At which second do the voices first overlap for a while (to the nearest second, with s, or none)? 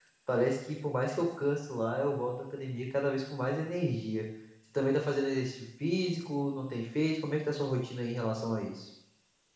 none